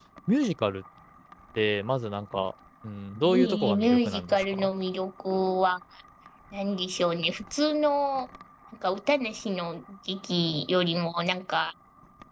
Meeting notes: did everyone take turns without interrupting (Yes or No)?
No